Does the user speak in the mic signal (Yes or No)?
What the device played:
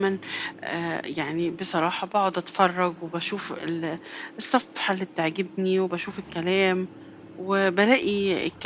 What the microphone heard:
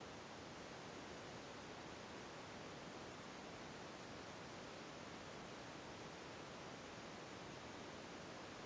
No